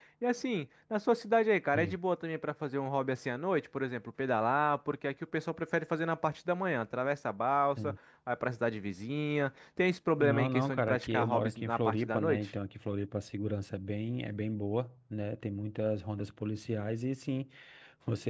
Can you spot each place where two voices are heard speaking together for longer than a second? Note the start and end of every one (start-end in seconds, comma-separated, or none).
10.2-12.5